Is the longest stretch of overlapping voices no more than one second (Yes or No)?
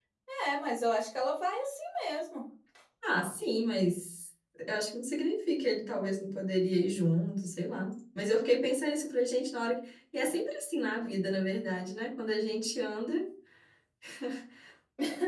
Yes